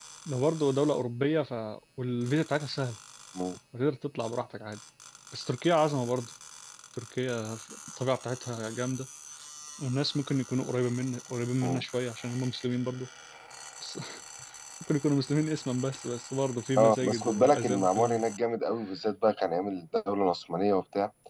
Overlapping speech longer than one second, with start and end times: 16.8-18.2

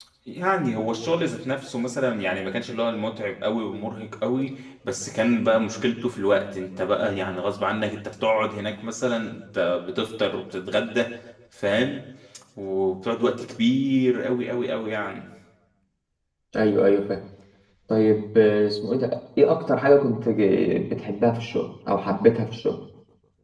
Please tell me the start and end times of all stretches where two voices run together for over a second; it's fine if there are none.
none

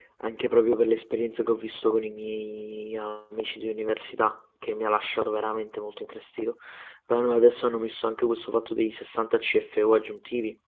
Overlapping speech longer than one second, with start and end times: none

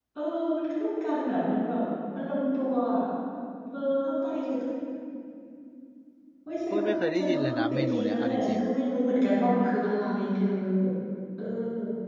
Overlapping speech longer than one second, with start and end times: 6.7-8.6

